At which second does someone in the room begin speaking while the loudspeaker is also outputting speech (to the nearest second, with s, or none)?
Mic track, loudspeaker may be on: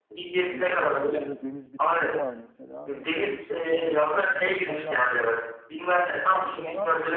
0 s